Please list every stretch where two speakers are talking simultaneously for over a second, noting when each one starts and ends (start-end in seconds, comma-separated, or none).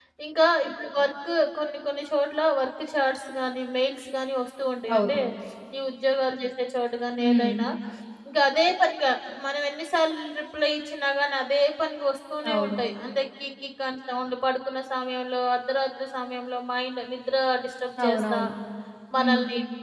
none